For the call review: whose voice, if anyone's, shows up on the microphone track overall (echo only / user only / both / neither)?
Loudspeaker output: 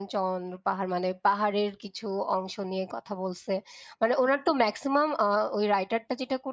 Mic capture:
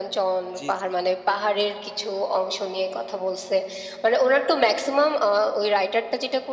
both